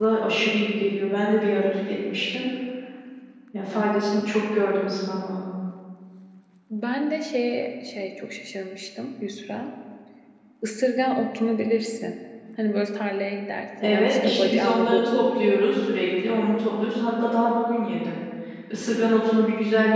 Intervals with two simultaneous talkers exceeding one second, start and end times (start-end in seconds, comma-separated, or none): 13.8-15.3